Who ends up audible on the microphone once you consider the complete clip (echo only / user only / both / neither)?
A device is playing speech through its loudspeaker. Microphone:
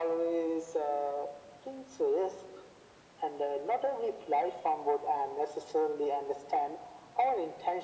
echo only